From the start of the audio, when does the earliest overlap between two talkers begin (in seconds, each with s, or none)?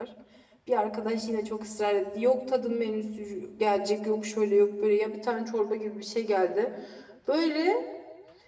none